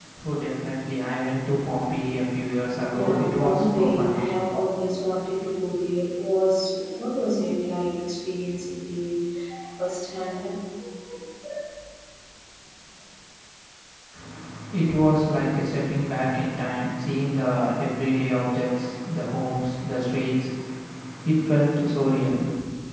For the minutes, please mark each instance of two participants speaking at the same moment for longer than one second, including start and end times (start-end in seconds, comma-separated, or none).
2.9-4.2